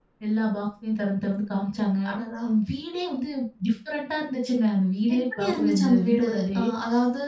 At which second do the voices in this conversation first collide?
5.1 s

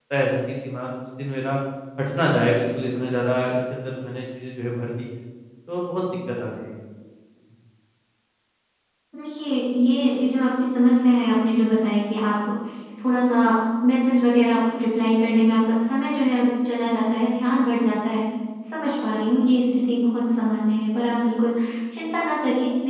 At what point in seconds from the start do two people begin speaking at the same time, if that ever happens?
none

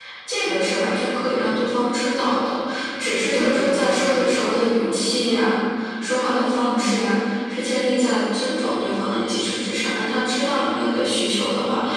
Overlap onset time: 3.3 s

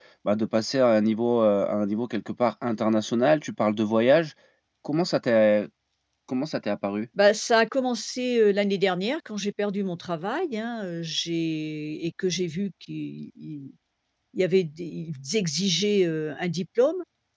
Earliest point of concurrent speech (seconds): none

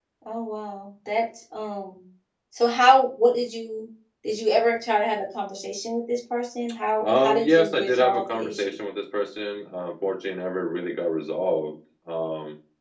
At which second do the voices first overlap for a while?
7.0 s

